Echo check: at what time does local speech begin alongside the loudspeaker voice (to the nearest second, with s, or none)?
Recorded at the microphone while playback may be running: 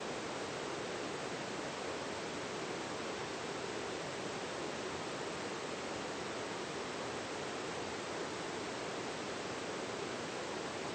none